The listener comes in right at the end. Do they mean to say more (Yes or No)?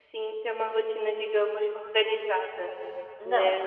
No